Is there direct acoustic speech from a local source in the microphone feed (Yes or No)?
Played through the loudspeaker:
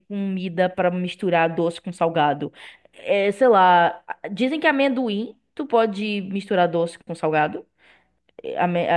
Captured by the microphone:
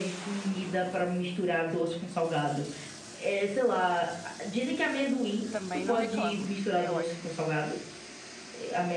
Yes